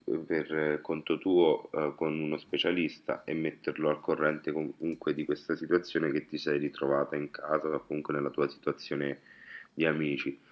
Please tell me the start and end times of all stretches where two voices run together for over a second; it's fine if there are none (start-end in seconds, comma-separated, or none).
none